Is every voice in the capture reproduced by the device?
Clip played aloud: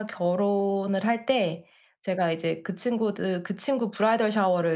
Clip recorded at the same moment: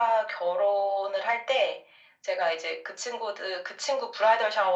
Yes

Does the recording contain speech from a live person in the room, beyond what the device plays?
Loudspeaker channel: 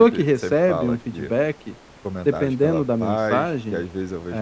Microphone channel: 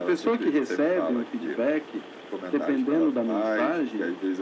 No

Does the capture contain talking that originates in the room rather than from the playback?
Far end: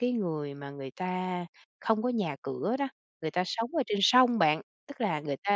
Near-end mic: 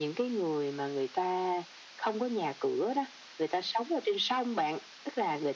No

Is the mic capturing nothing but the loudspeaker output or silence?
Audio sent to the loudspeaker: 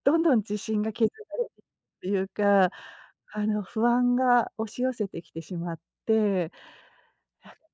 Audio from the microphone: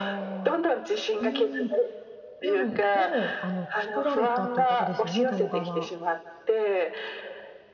No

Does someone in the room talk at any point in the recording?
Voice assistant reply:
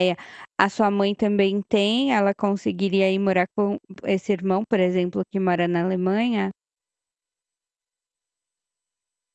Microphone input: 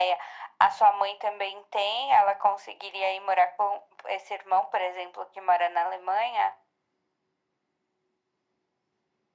No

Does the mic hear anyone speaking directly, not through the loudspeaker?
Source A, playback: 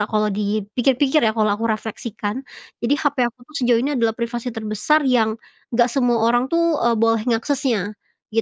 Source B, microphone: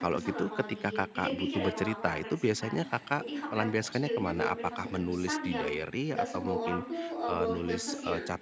Yes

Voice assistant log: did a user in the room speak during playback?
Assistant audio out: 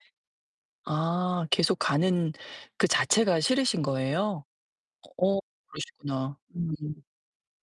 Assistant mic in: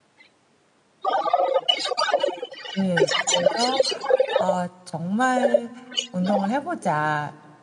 Yes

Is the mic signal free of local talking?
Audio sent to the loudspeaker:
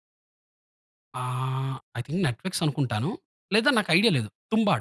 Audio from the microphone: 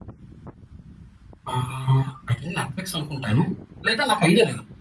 Yes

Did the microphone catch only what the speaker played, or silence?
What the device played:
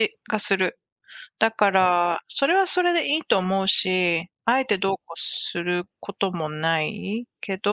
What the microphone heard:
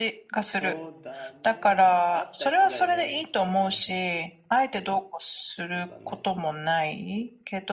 No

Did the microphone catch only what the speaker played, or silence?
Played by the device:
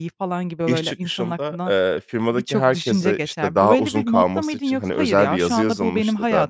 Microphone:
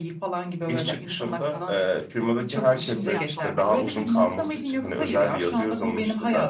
No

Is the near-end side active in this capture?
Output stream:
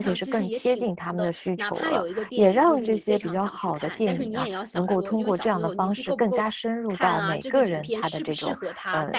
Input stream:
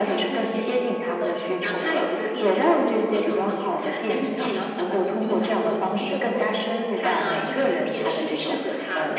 No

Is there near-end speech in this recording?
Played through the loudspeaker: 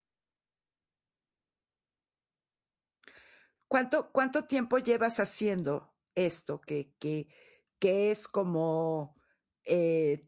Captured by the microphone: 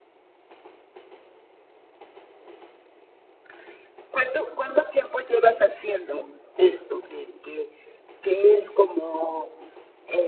No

